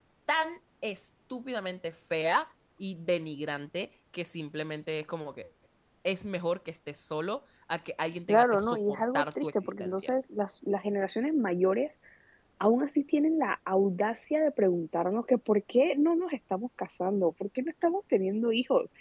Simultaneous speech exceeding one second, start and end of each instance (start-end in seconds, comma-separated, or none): 8.3-10.1